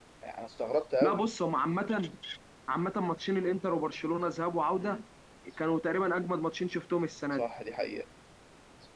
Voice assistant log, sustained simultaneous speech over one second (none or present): none